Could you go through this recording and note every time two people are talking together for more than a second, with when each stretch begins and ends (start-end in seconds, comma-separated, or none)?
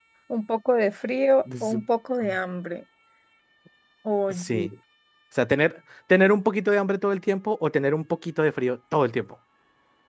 none